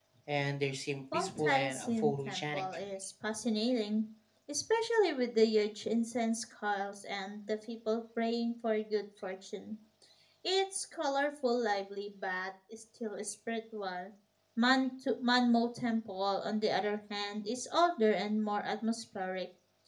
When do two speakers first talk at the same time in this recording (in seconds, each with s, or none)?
1.1 s